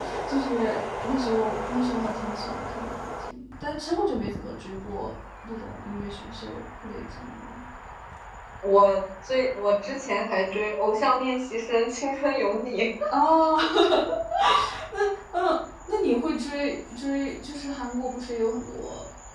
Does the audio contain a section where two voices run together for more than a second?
No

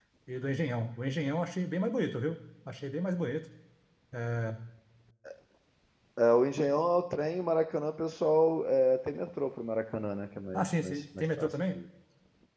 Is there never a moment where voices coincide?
No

